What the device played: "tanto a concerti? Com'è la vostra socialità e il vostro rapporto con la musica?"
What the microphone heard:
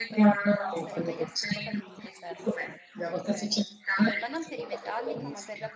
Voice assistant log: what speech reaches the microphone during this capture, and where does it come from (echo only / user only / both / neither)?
both